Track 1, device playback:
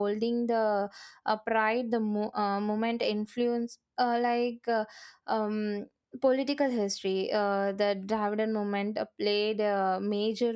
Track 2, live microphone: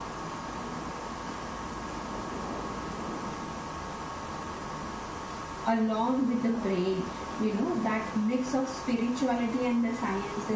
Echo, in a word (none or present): none